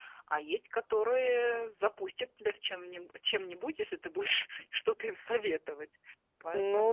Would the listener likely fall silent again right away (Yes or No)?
No